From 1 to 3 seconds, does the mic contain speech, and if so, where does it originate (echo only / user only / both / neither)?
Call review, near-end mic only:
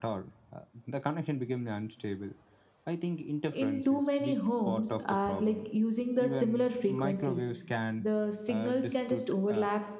echo only